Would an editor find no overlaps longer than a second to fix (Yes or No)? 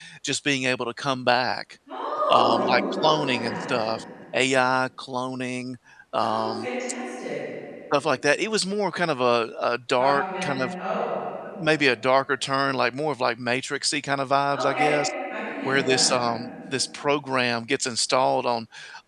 No